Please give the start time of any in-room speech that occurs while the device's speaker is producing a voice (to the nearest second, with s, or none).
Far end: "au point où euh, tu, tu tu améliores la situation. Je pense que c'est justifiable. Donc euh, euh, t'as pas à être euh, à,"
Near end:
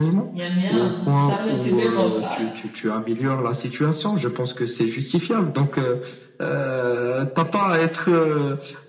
0 s